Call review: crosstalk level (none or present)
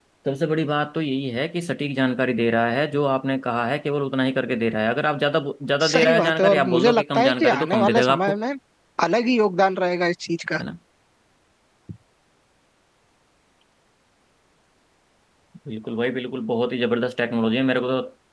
present